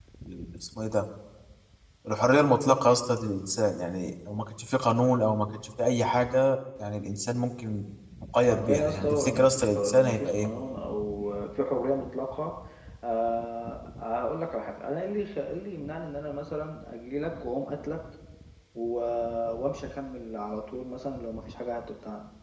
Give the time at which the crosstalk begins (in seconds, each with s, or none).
8.5 s